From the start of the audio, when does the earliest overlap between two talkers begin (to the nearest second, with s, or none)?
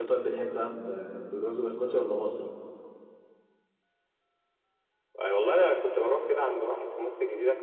none